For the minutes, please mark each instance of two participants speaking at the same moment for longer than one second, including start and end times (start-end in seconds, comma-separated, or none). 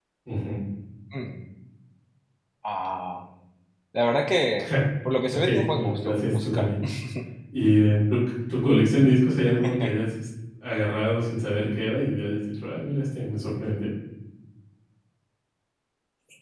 5.3-6.7